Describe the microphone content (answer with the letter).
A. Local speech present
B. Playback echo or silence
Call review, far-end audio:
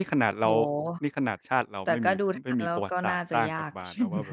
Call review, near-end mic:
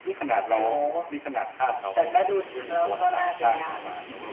B